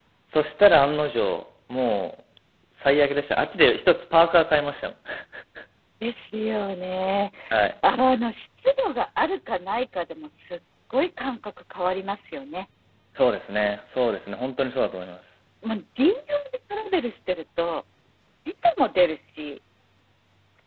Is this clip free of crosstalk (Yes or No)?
Yes